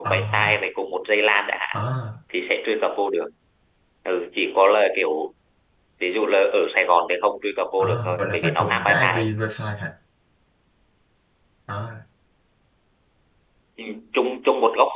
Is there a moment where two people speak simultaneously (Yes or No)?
Yes